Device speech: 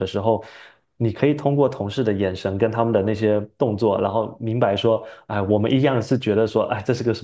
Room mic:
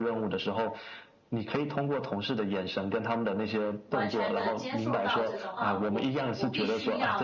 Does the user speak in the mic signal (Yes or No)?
Yes